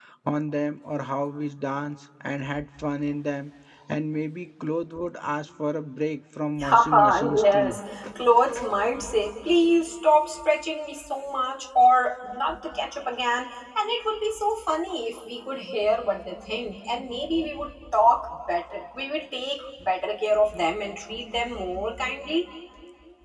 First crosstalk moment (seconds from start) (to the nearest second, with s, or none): 7 s